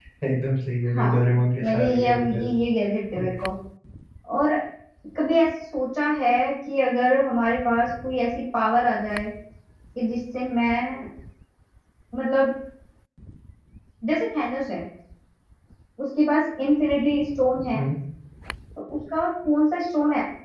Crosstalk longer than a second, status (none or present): present